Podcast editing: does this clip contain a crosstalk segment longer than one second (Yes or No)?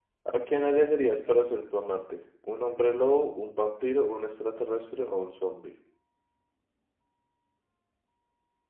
No